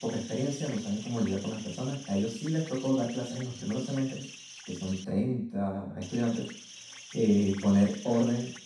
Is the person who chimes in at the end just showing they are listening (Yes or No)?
Yes